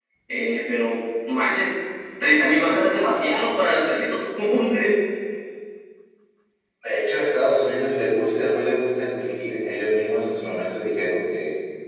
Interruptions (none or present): none